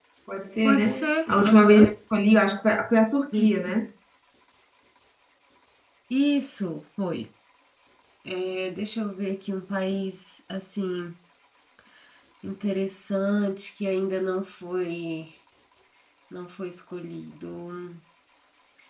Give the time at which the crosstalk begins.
0.6 s

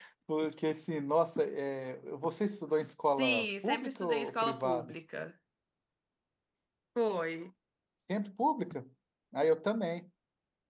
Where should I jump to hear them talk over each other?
3.2 s

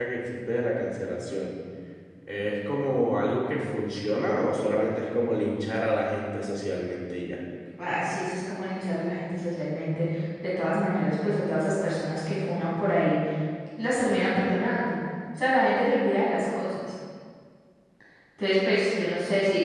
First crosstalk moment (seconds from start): none

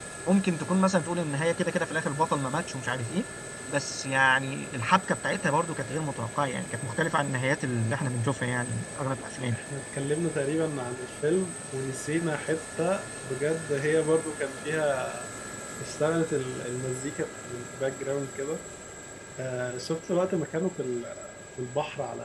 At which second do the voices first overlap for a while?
none

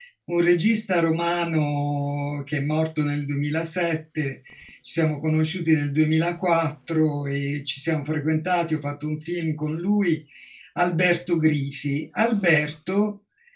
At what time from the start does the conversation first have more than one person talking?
none

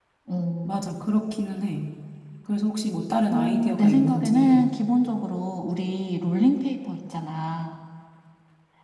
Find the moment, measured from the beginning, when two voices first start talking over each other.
3.3 s

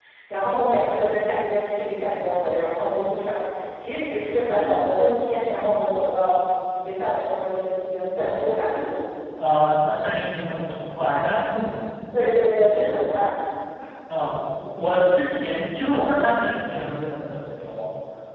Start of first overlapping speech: none

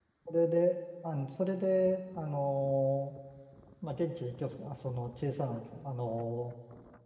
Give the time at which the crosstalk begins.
none

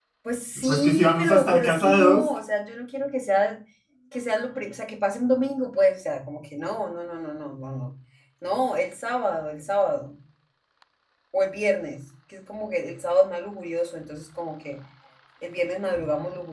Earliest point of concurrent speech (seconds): 0.6 s

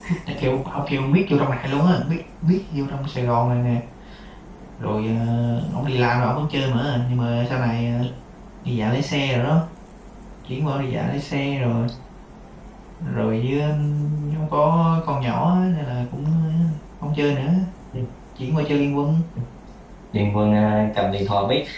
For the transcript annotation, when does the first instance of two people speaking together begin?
none

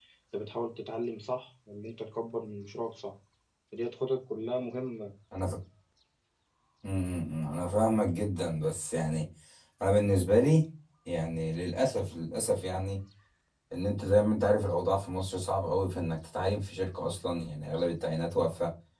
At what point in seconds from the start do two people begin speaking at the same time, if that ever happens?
none

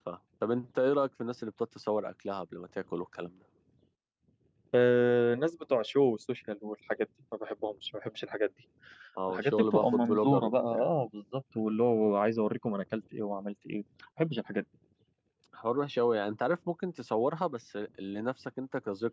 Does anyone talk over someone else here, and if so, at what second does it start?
9.3 s

